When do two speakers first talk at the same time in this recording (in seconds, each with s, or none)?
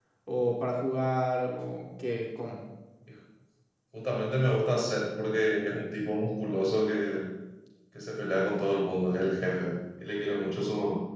none